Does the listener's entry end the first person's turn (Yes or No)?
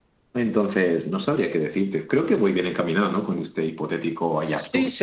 Yes